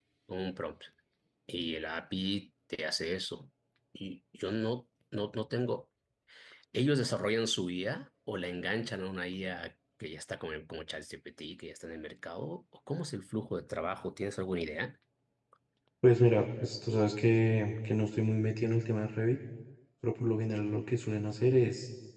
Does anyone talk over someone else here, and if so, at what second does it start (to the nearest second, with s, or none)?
none